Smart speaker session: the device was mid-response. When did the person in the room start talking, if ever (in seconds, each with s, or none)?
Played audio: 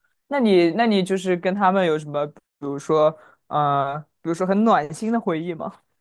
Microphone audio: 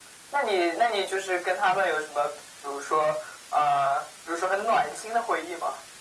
none